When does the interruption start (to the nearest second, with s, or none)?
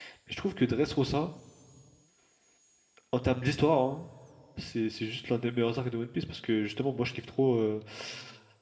none